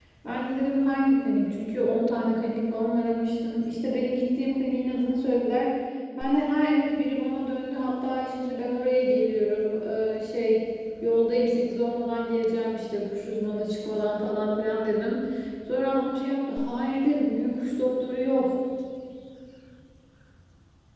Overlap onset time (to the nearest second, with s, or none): none